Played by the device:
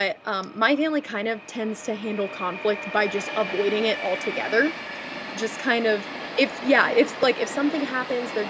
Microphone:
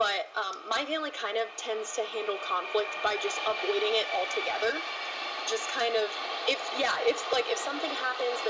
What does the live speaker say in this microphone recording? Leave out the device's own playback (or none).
none